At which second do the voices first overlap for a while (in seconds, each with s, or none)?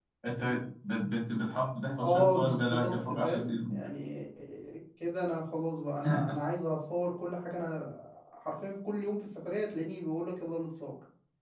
2.0 s